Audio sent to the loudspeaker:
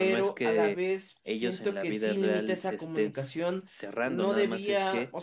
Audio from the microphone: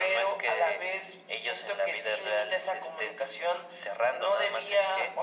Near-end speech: none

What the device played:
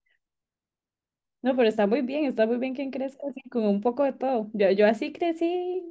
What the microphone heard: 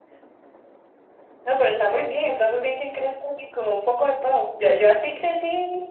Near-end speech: none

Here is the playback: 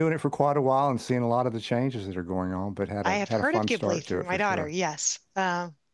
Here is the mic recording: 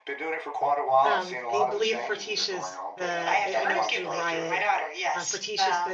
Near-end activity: present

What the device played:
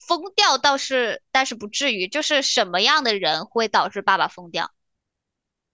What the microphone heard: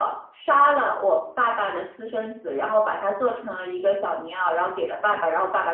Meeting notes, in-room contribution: present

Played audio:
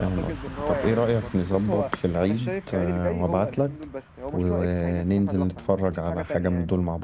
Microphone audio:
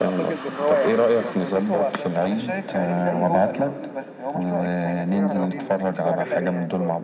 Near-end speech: present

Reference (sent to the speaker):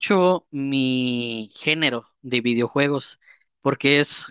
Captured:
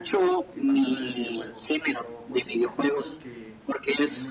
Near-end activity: present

